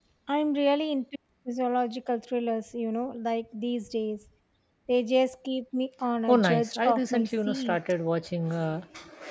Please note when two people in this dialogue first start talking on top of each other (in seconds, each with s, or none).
6.3 s